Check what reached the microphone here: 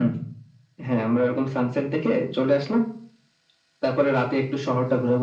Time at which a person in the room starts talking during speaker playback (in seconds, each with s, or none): none